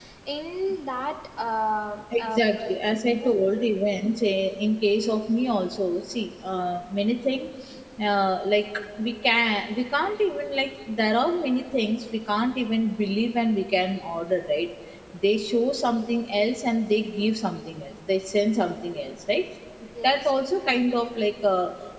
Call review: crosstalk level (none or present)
present